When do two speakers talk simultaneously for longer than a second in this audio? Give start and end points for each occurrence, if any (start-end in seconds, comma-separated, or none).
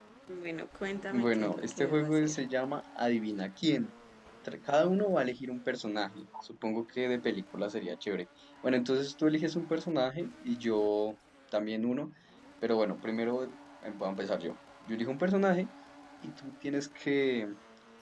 1.1-2.4